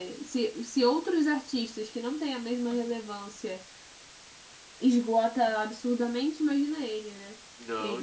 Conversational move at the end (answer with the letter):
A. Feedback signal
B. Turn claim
B